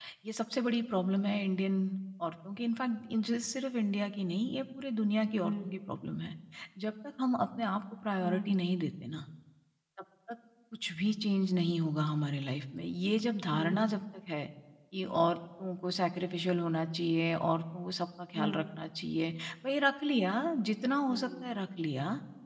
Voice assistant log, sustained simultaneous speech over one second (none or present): none